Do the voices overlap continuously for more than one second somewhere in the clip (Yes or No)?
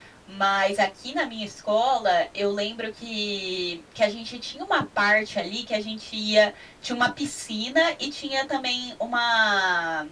No